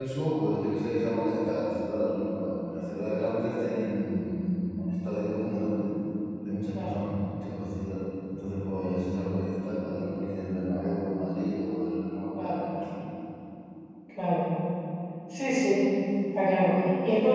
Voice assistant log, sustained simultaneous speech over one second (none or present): none